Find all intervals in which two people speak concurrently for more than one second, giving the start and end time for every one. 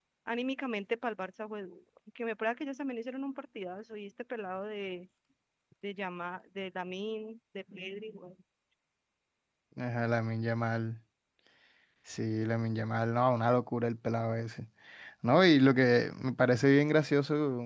none

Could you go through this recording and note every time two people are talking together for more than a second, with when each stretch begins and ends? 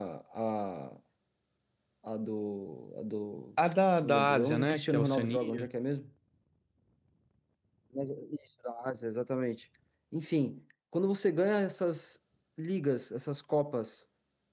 4.0-5.7

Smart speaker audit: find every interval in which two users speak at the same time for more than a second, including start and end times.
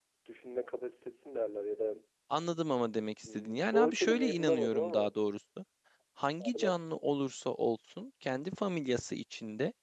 3.2-5.1

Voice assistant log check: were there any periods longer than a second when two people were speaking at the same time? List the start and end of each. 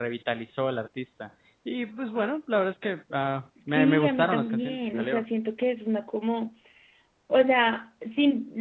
3.7-5.2

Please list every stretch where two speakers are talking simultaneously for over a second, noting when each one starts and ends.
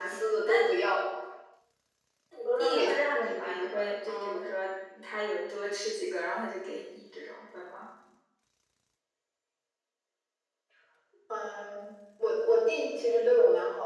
2.6-4.4

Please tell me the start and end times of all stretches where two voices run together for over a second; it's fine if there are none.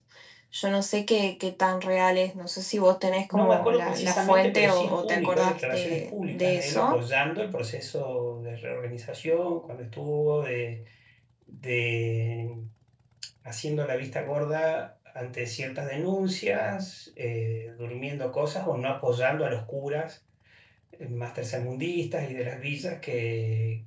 3.3-7.0

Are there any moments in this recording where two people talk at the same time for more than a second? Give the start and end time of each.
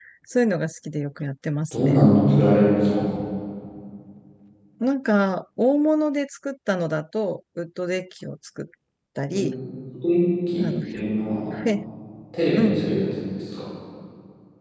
none

